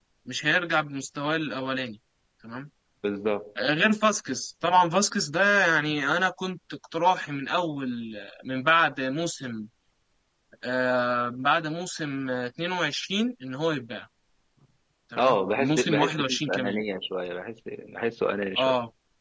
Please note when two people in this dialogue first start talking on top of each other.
15 s

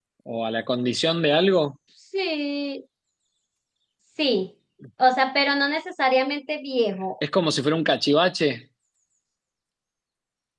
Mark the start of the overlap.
none

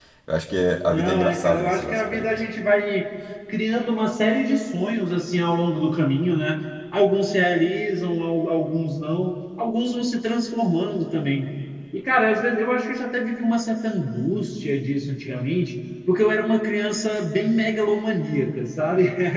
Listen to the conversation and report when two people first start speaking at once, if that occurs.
1 s

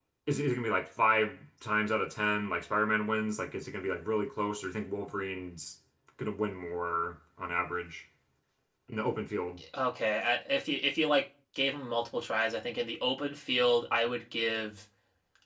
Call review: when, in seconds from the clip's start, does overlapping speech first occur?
none

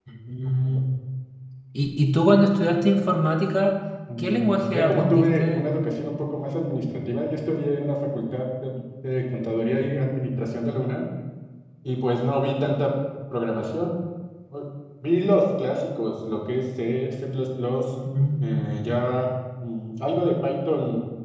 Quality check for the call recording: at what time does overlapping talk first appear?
4 s

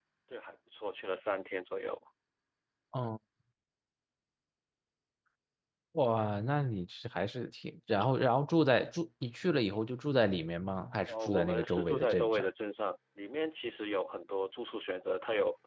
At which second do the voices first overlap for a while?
11 s

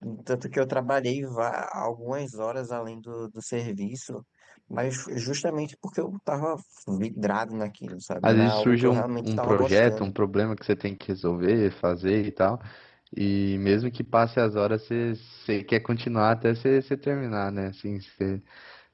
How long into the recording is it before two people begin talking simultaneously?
8 s

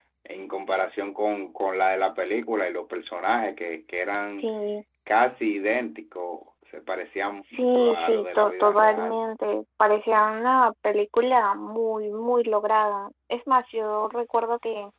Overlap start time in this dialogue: 8 s

